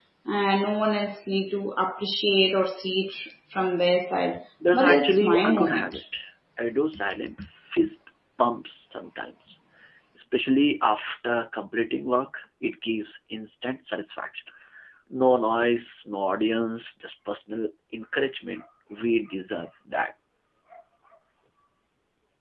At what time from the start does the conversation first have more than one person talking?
4.6 s

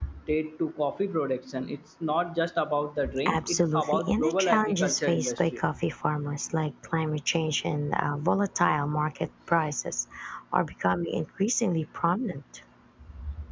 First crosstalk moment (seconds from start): 3.0 s

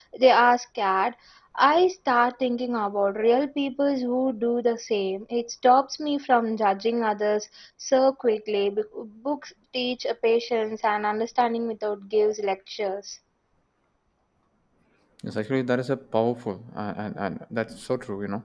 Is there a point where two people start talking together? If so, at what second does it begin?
none

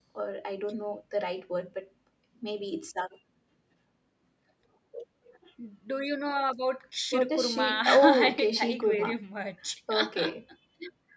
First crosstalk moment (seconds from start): 7.1 s

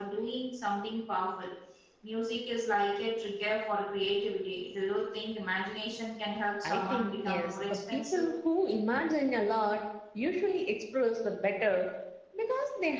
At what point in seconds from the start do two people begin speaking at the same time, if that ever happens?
6.6 s

